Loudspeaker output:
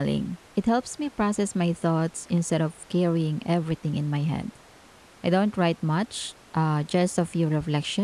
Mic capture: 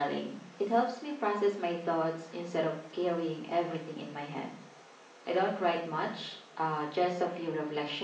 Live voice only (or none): none